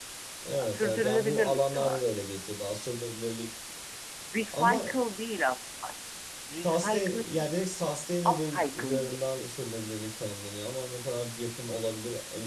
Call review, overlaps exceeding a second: present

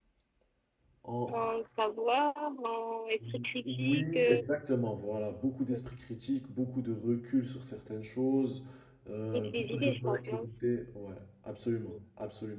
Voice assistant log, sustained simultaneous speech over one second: present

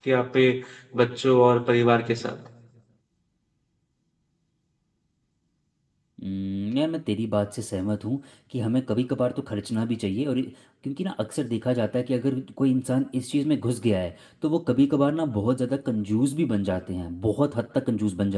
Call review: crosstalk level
none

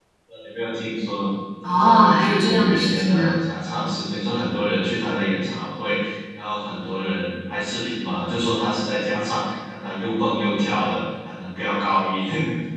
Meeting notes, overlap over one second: present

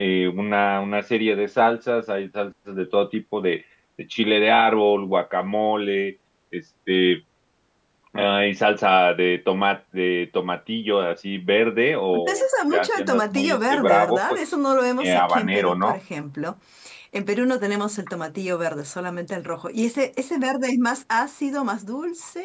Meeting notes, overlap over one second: present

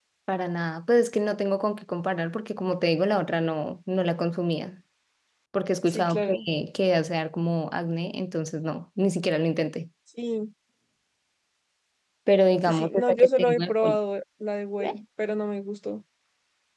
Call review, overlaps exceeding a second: present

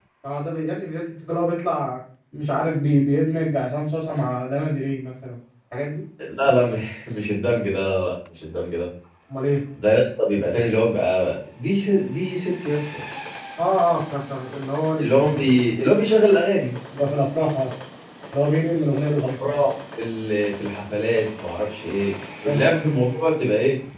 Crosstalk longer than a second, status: none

